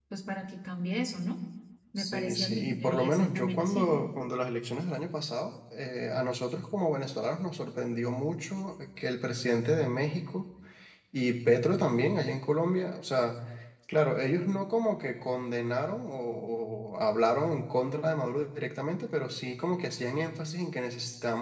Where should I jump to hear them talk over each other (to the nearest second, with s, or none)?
2 s